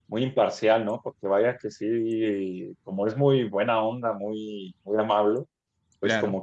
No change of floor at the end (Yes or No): Yes